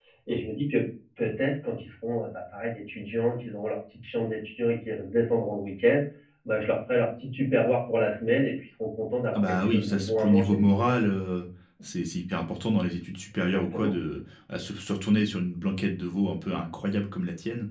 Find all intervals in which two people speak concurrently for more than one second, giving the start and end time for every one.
9.3-10.6

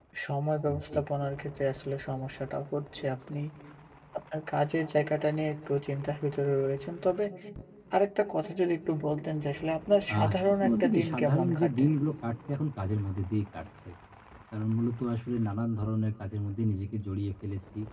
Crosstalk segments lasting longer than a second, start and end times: 10.2-11.8

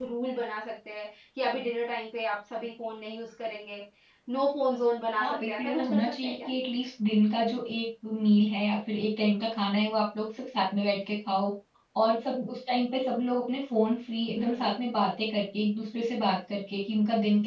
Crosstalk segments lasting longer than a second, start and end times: 5.2-6.5

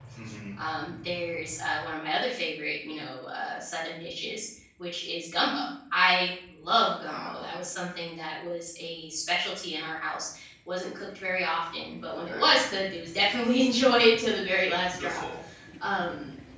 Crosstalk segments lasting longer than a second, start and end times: none

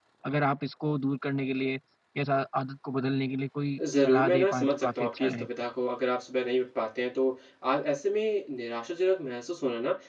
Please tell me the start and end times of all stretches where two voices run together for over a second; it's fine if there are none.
4.0-5.5

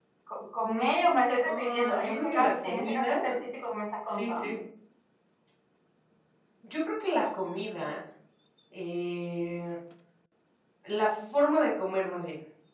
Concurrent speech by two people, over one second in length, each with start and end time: 1.4-3.1

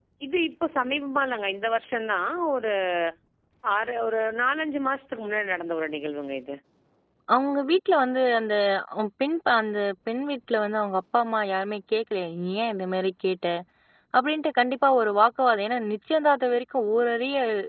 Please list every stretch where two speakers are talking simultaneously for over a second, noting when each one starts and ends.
none

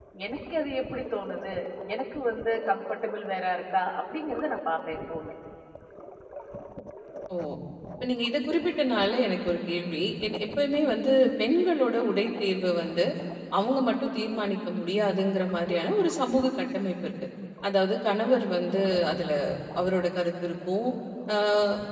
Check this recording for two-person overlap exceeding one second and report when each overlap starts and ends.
none

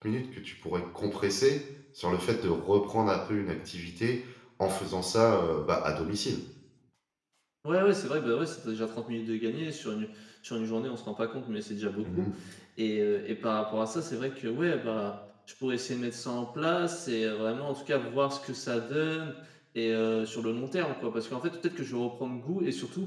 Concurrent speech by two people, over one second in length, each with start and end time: none

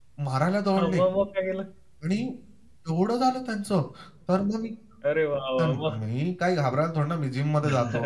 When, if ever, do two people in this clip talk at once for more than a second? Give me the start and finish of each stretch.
none

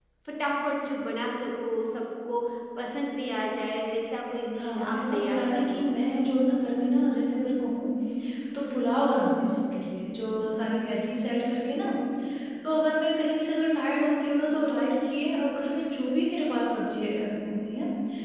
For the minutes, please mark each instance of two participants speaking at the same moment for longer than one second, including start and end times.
4.6-5.8

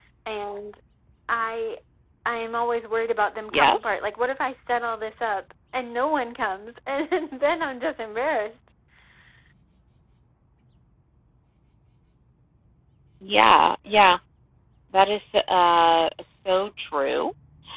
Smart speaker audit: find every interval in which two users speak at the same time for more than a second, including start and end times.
none

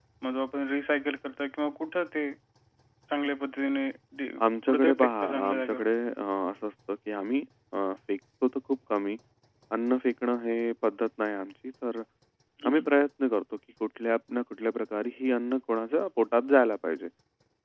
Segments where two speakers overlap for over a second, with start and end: 4.4-5.8

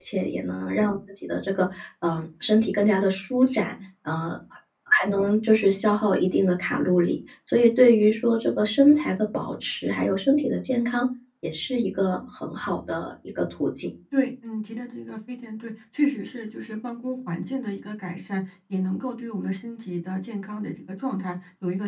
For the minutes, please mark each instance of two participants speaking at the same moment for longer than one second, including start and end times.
none

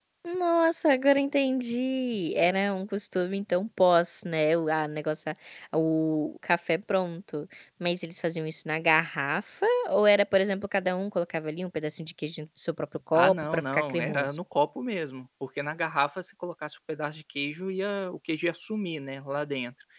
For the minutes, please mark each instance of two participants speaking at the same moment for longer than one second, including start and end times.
13.2-14.4

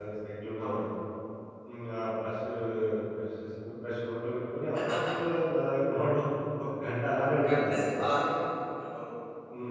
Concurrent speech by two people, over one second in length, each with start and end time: none

